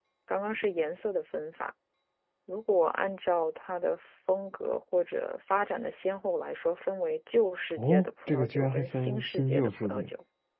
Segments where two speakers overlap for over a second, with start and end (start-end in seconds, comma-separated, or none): 7.8-10.1